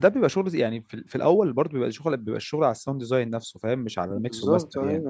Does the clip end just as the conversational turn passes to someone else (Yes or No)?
Yes